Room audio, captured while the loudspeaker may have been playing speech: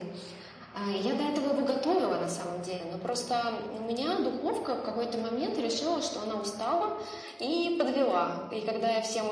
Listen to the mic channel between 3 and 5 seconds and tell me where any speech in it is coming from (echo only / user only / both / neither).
echo only